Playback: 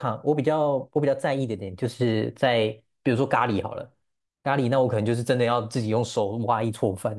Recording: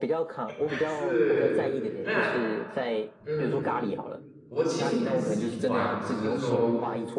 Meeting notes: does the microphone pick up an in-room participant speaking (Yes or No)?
Yes